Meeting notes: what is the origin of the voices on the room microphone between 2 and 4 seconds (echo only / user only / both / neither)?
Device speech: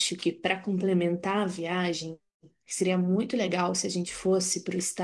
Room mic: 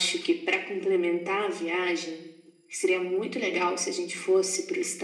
echo only